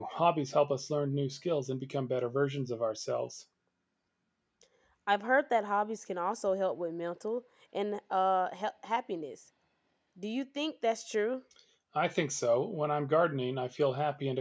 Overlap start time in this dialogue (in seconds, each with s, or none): none